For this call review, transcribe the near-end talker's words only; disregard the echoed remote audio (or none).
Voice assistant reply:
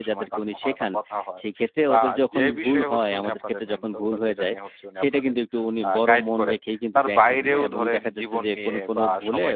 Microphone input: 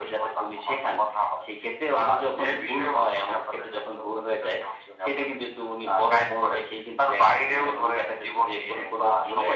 none